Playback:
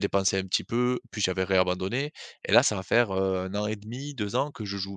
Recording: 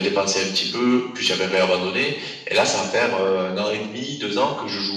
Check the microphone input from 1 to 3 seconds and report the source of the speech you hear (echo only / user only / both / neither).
echo only